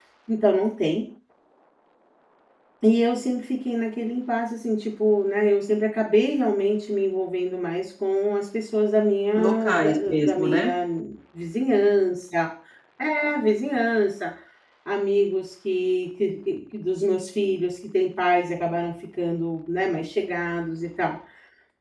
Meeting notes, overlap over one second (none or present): present